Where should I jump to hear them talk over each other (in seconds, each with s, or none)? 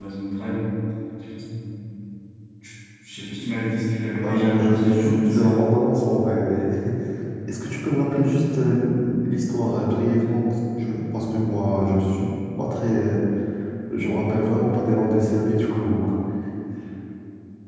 4.2 s